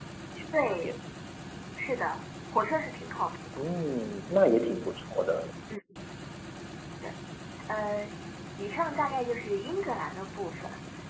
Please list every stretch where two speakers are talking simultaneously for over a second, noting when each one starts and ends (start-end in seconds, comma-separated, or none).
none